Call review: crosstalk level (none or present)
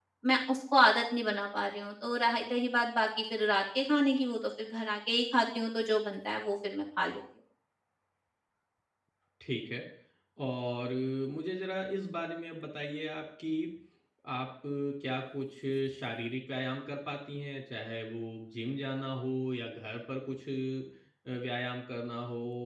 none